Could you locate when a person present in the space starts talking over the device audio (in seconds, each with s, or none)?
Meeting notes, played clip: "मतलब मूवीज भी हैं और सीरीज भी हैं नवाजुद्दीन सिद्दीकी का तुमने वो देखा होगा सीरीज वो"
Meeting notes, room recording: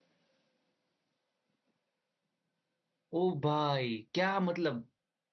3.2 s